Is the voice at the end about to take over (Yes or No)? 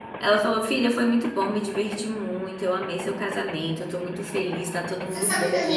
Yes